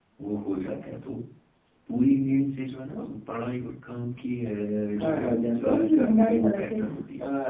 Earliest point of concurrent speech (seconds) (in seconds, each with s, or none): 5.0 s